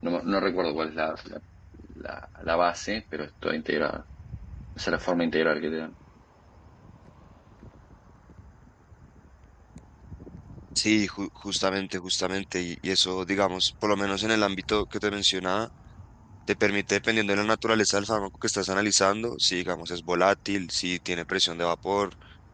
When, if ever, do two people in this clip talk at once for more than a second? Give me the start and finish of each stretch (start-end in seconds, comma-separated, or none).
none